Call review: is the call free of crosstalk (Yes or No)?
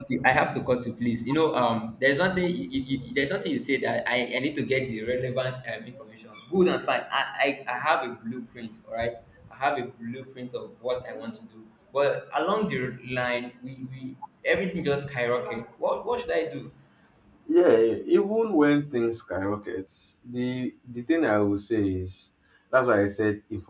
Yes